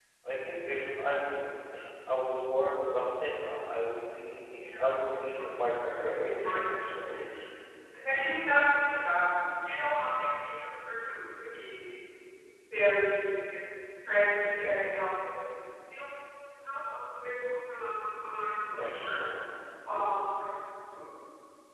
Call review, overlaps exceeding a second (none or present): present